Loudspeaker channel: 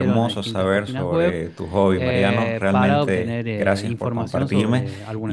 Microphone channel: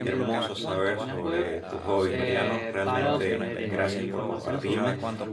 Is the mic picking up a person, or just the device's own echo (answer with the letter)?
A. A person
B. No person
A